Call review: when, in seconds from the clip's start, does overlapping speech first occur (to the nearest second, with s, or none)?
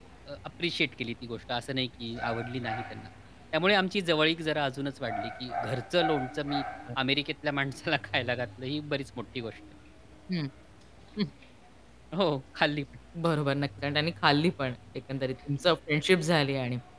none